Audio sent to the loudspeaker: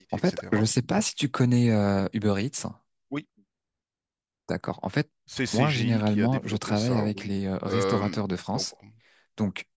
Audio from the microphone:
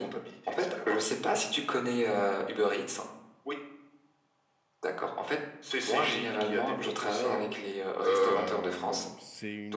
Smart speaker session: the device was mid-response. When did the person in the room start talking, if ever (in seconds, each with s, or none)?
8.3 s